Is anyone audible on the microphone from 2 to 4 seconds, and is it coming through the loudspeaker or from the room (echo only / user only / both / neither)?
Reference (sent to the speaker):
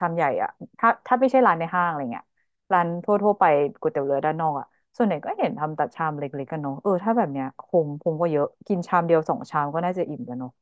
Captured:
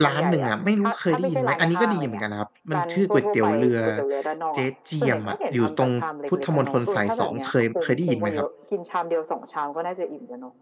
both